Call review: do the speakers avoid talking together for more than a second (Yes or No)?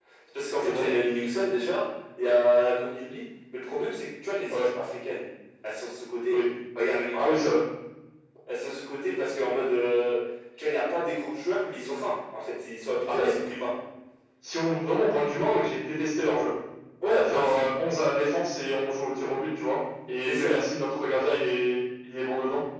Yes